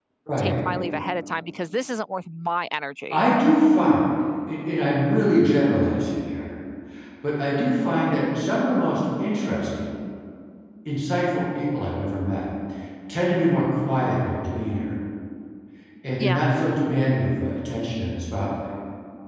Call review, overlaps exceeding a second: none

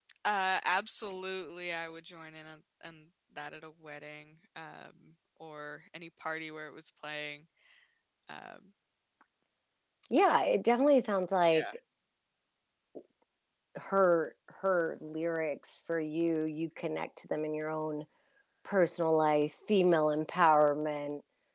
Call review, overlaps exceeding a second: none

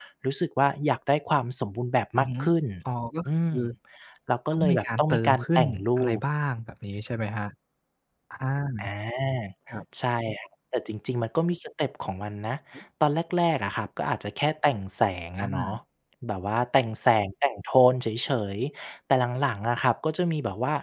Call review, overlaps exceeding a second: present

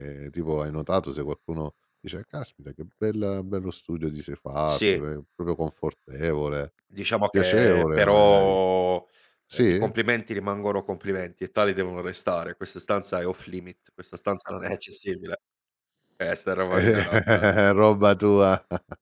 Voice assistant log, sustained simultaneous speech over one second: present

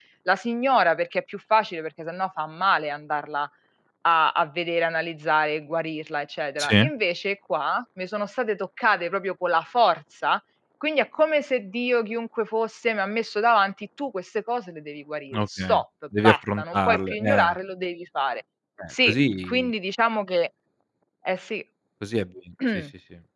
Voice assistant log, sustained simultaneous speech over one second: present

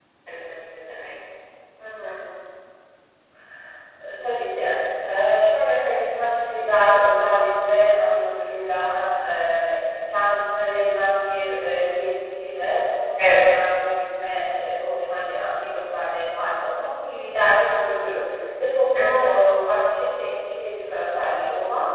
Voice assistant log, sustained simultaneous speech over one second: none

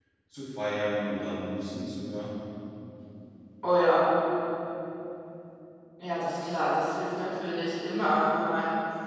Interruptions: none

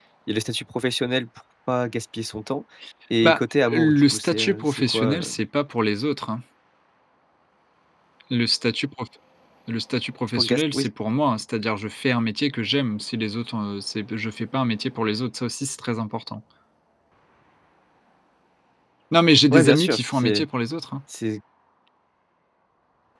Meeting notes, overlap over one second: present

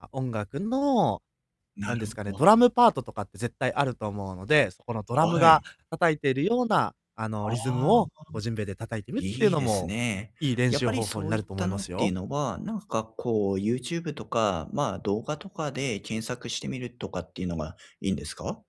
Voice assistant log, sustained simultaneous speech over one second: present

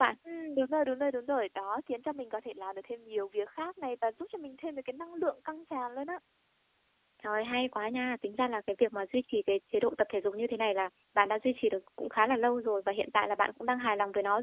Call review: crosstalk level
none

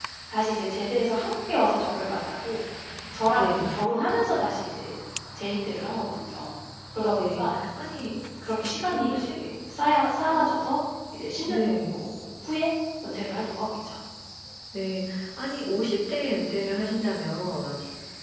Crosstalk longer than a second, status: none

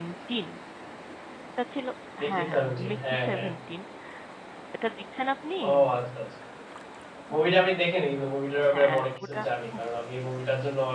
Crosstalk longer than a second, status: present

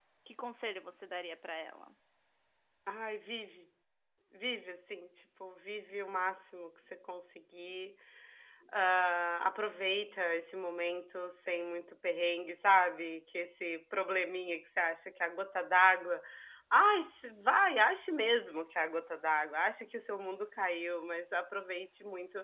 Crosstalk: none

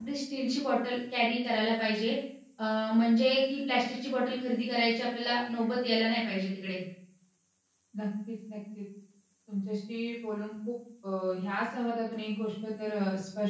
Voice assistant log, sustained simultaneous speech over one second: none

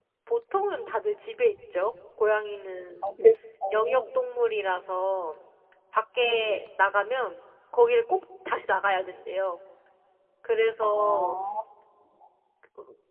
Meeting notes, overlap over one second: none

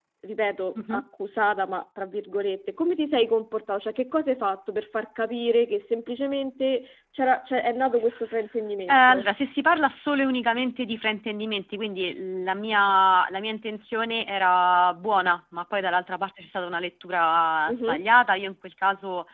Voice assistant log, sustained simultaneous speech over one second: none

